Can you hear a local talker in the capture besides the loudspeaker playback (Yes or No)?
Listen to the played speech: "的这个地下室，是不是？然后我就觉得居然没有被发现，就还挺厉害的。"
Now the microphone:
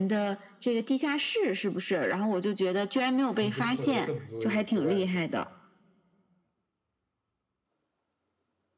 Yes